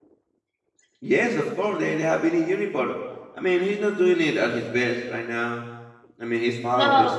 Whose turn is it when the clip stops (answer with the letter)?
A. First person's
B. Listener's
B